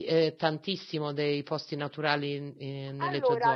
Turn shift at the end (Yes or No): Yes